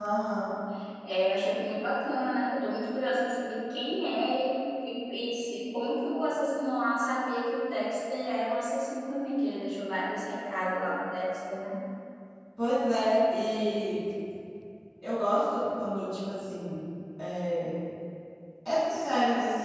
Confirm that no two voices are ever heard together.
Yes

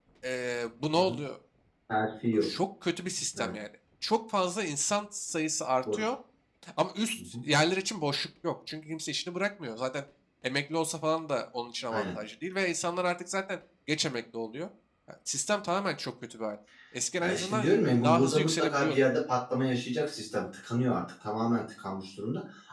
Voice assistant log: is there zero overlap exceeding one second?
No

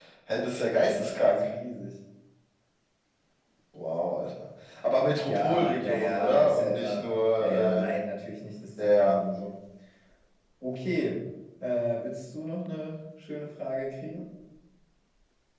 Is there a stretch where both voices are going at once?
Yes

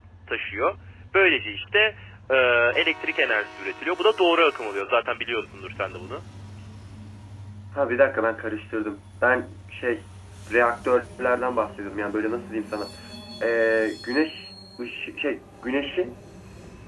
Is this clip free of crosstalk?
Yes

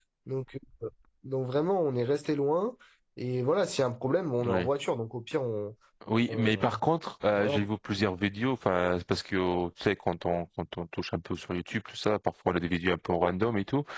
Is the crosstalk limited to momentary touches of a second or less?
Yes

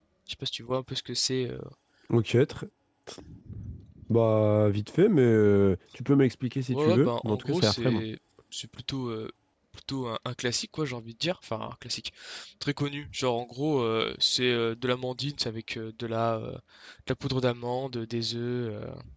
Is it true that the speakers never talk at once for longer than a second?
No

